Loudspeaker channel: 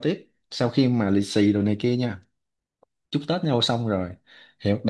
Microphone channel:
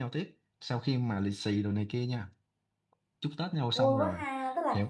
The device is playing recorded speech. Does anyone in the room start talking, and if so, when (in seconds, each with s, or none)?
3.7 s